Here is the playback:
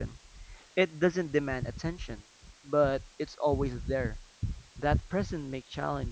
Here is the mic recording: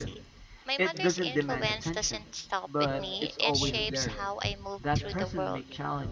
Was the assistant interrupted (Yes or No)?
Yes